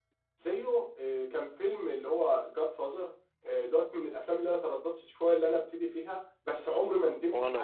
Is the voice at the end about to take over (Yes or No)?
No